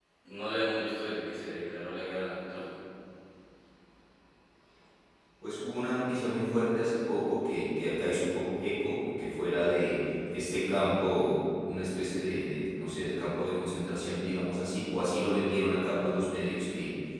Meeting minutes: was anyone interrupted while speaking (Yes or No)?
No